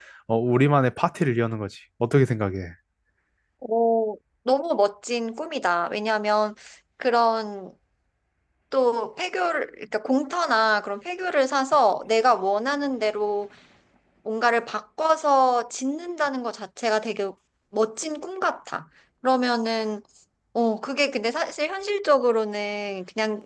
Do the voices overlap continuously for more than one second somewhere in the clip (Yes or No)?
No